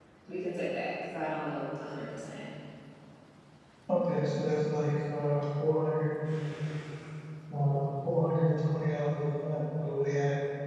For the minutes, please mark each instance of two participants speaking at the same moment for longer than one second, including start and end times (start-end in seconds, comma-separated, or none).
none